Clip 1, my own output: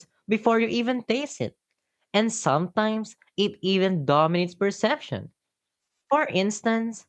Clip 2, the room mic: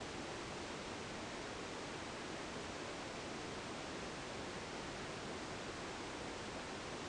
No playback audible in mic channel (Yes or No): Yes